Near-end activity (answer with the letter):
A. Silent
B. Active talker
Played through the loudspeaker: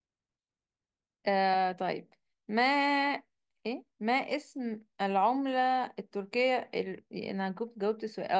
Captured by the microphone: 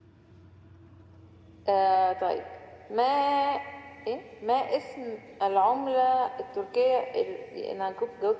A